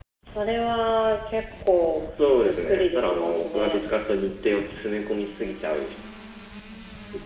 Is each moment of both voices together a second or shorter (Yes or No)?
No